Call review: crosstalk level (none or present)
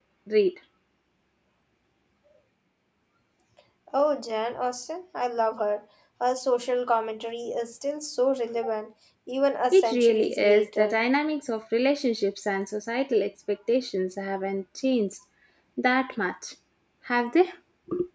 present